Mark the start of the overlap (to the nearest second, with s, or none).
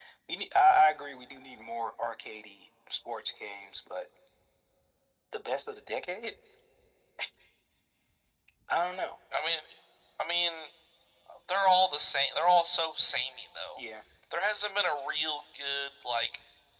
none